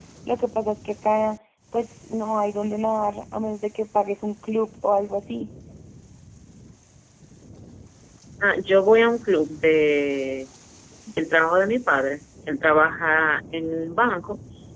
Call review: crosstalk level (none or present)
none